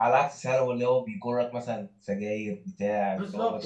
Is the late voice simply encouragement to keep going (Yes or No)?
No